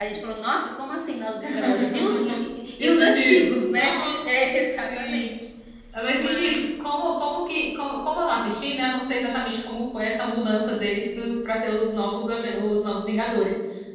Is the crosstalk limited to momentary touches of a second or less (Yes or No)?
No